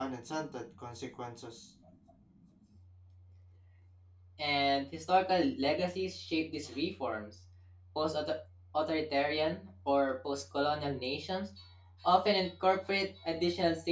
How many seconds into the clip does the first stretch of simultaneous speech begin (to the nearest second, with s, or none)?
none